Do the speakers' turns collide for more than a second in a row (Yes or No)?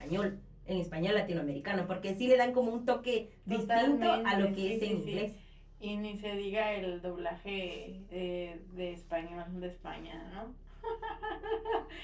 Yes